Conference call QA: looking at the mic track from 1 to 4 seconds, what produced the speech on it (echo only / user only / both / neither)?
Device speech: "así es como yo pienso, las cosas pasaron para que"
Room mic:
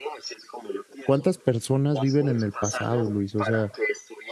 both